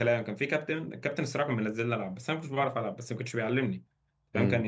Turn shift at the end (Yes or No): No